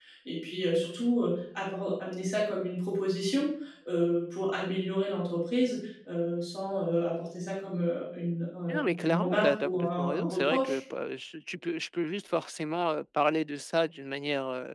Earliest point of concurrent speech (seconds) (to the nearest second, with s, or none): 9 s